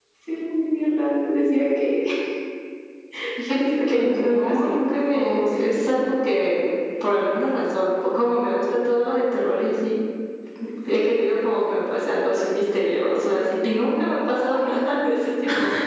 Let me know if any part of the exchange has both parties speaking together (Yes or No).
Yes